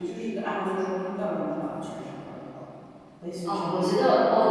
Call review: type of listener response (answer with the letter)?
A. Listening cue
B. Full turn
B